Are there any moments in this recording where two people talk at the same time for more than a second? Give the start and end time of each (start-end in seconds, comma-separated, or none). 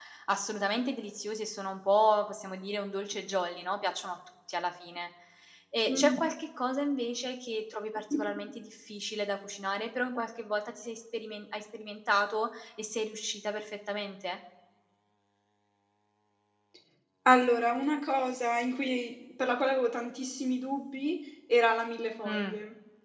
none